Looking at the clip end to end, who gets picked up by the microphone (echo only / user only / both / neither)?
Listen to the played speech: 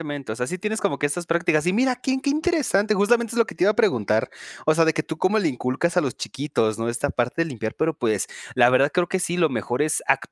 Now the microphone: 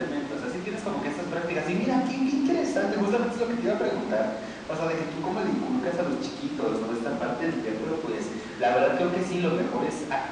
echo only